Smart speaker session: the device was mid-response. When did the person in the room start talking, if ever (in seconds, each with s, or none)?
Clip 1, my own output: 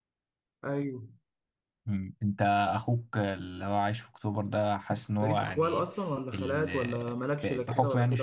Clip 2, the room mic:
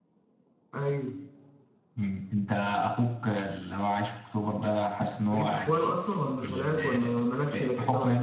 none